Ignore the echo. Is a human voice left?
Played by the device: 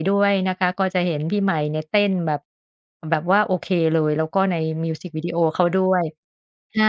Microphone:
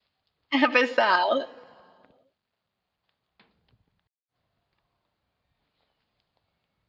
Yes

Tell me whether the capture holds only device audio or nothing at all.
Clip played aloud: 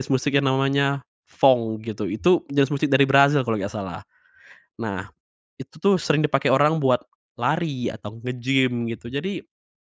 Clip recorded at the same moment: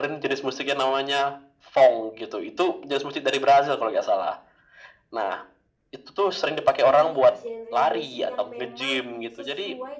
No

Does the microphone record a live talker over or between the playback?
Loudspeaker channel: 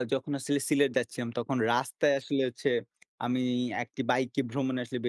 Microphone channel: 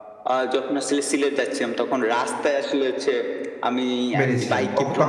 Yes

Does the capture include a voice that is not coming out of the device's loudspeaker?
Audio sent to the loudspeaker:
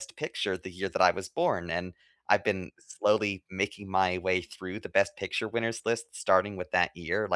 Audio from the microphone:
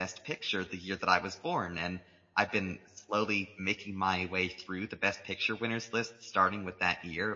No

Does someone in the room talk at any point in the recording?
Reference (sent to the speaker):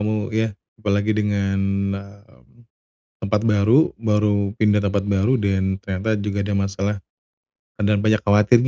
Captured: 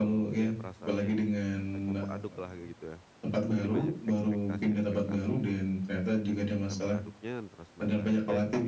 Yes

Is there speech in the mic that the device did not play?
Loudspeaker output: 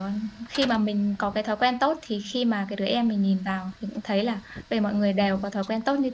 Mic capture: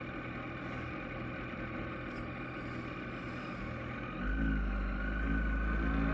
No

